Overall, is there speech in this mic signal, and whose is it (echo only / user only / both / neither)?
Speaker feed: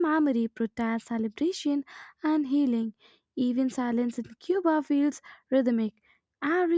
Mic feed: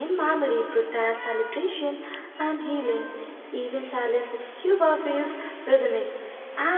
echo only